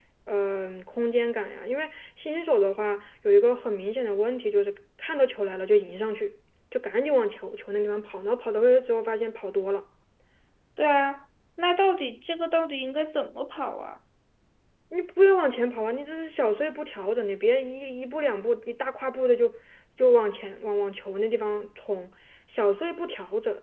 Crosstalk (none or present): none